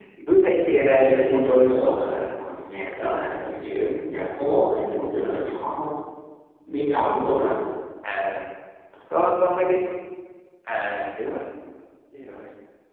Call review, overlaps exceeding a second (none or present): present